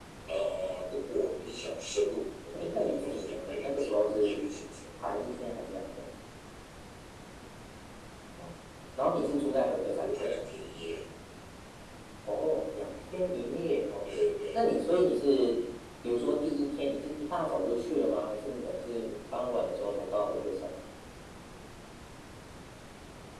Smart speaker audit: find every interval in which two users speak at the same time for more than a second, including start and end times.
2.5-4.4

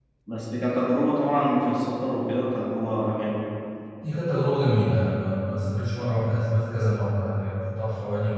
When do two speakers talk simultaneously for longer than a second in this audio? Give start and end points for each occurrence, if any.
none

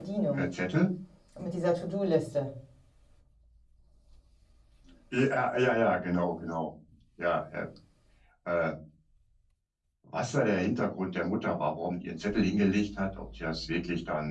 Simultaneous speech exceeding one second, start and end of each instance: none

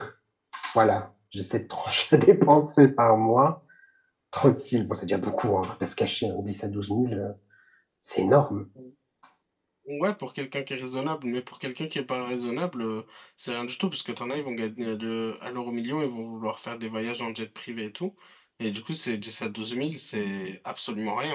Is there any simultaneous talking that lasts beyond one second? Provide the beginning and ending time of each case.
none

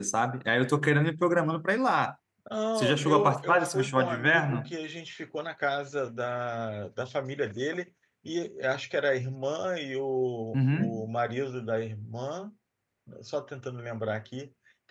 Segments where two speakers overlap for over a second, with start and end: 2.8-4.7

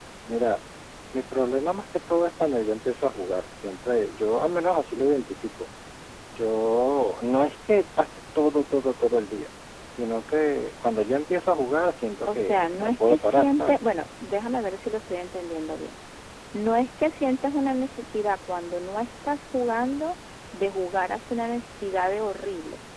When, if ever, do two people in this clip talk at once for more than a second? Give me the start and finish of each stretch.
12.2-13.8

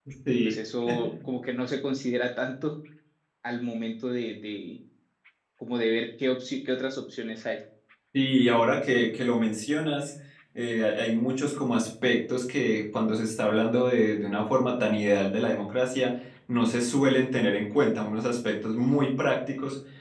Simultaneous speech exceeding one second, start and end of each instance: none

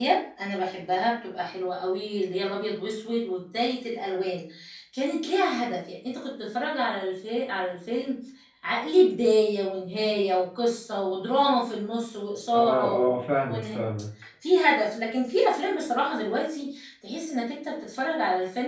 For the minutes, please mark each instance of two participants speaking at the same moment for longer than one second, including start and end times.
12.5-13.8

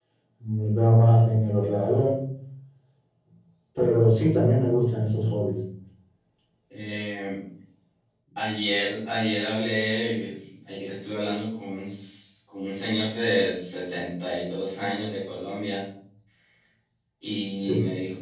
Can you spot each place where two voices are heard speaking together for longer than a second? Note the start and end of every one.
none

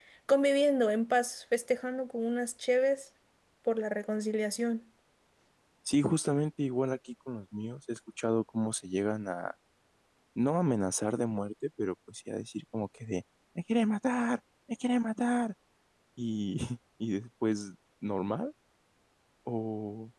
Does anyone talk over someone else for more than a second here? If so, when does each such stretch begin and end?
none

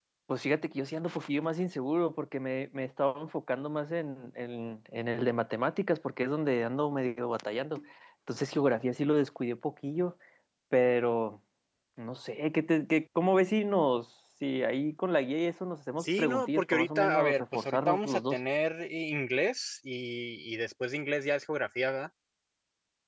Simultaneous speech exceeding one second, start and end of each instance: 16.0-18.4

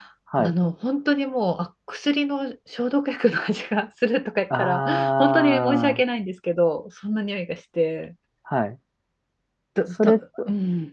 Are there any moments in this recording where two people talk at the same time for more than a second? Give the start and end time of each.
4.6-6.0

